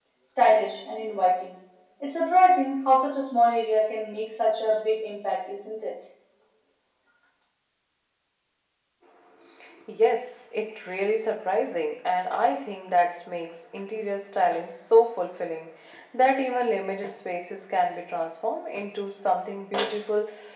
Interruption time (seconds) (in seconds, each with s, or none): none